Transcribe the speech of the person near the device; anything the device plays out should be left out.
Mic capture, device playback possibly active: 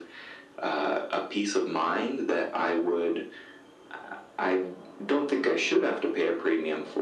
none

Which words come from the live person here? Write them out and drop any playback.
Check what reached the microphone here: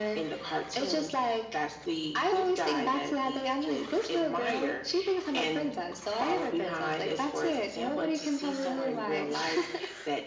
none

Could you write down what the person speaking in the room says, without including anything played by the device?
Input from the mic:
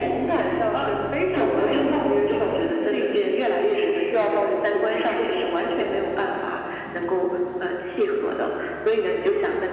none

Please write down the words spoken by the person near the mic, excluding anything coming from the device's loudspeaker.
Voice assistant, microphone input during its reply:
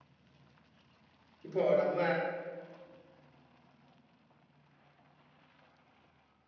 இப்போ நம்ம

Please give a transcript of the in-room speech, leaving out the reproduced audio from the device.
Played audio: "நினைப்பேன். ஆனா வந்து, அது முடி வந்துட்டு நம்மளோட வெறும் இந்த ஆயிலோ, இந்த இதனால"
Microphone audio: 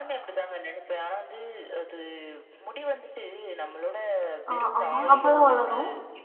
ஆ ஆமா. அப்பலாம் வளரும்.

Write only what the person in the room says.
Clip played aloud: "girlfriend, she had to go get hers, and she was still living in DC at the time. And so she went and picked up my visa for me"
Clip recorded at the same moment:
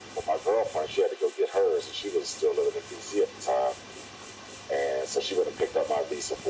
none

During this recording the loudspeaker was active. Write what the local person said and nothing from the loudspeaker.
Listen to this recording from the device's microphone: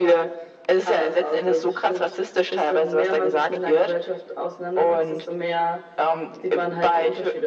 none

